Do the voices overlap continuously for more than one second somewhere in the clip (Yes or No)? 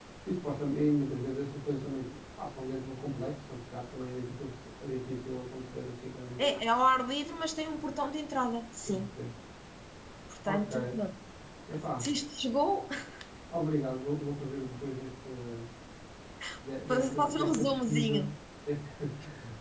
Yes